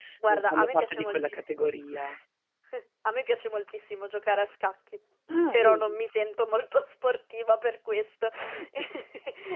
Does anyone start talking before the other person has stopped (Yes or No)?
Yes